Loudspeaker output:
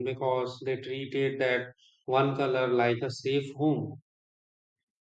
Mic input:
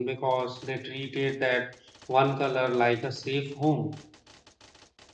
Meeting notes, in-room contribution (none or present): none